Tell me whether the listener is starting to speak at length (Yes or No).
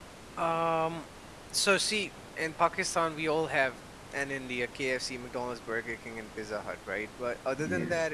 No